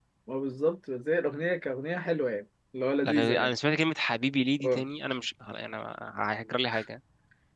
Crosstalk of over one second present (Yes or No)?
No